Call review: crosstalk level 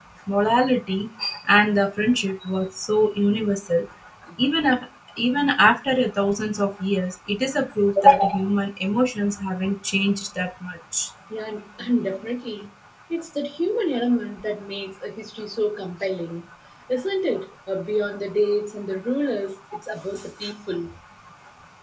none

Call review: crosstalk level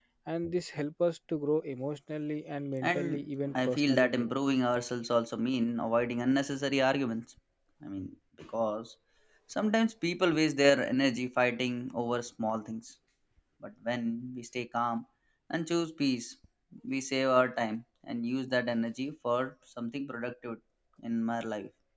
present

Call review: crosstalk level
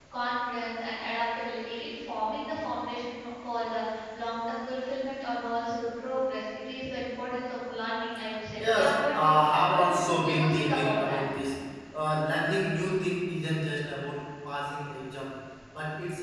present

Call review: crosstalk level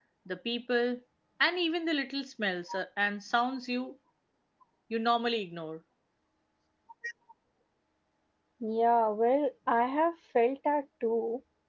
none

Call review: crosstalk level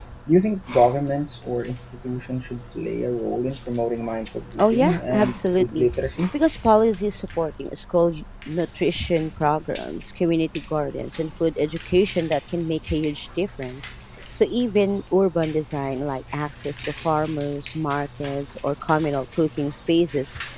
present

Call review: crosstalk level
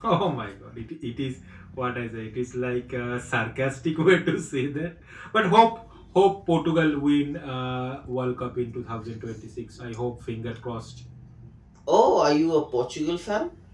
none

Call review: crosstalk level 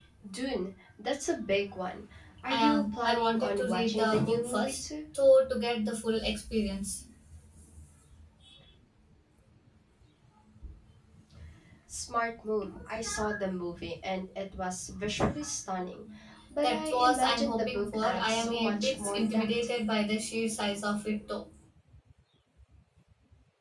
present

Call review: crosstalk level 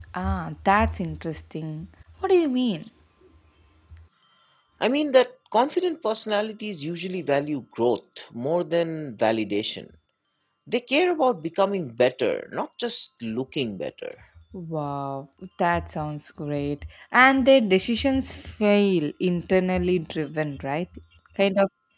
none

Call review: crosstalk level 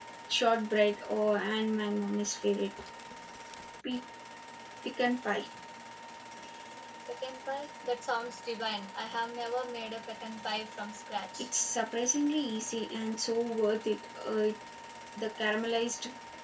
none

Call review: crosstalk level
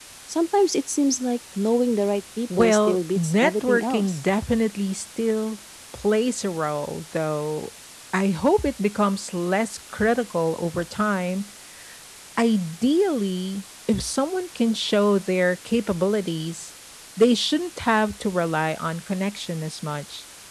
present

